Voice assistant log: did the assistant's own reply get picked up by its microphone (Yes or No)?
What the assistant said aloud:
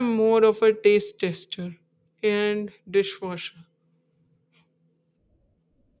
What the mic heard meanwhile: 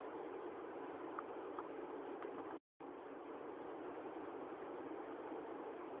No